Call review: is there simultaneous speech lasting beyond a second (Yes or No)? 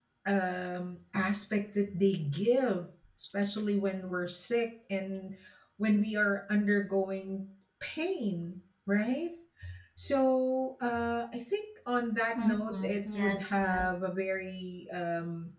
Yes